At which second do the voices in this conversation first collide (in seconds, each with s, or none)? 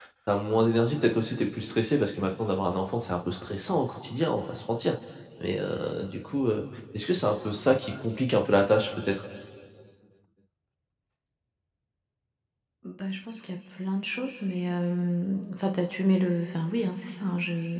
none